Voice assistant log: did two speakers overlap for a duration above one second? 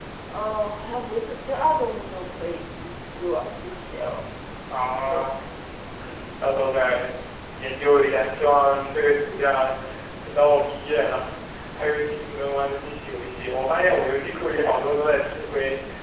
No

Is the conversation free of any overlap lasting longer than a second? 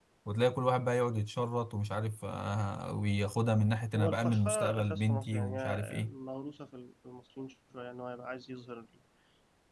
No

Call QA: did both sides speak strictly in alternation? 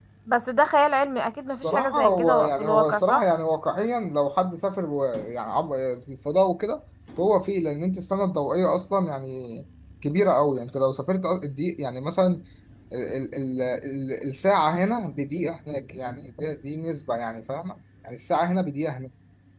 No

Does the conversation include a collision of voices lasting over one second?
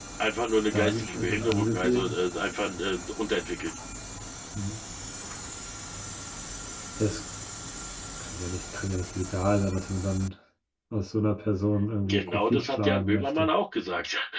Yes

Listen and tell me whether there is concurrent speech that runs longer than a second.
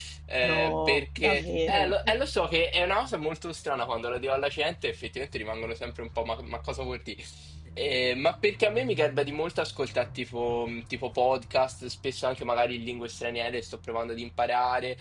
Yes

